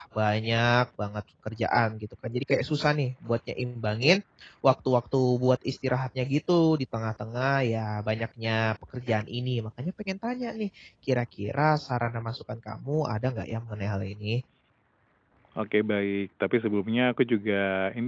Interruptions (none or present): none